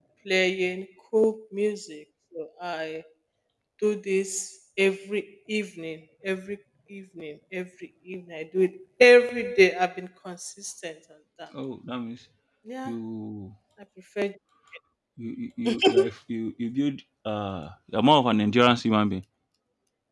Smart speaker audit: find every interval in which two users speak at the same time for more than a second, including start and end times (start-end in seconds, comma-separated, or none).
none